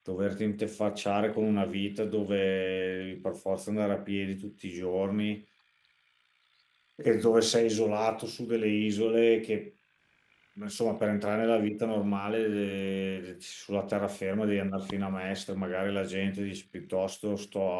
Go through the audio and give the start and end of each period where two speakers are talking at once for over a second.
none

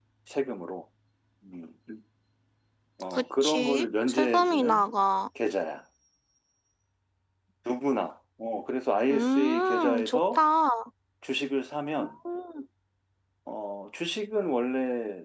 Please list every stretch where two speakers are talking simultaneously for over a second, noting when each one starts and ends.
3.1-4.9, 9.1-10.4

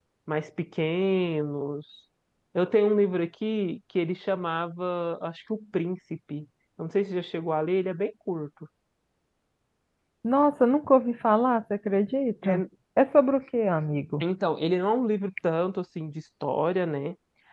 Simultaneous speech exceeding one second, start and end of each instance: none

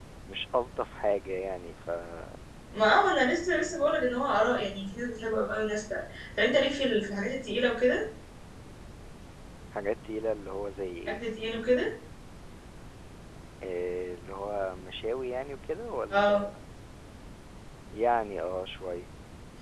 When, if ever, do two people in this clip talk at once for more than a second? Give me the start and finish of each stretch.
none

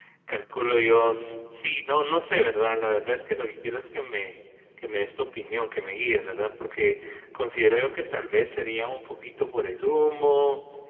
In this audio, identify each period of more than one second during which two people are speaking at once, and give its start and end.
none

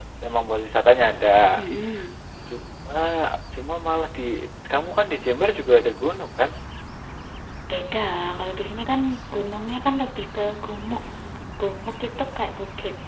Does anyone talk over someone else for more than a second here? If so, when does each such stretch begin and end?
none

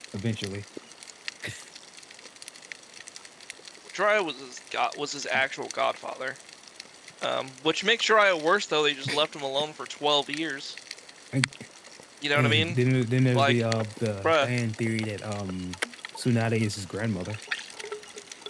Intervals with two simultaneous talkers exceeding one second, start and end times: none

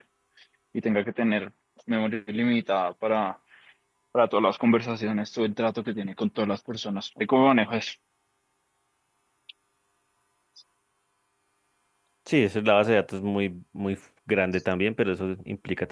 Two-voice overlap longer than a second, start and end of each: none

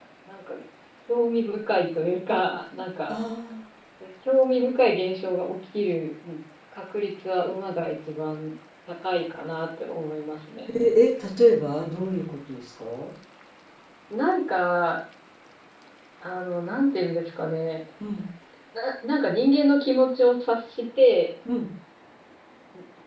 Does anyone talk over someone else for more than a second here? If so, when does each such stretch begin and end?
none

